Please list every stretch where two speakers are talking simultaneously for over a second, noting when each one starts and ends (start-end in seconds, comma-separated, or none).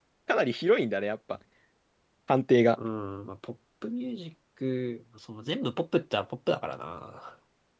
none